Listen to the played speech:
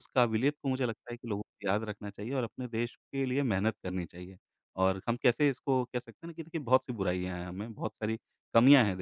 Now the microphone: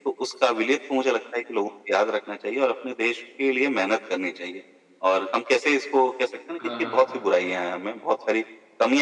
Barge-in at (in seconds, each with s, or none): 6.6 s